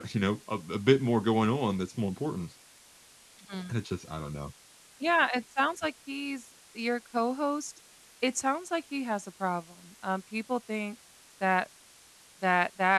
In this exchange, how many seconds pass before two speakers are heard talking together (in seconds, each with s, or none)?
none